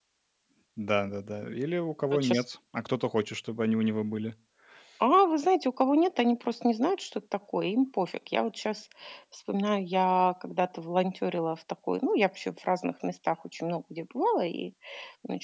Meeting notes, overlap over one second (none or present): none